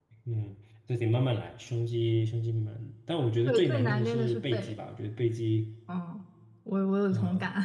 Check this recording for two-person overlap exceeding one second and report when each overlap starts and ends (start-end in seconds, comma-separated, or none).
3.5-4.8